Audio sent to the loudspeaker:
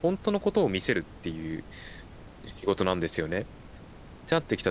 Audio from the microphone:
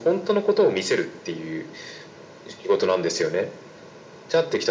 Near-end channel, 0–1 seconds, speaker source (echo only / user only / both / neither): echo only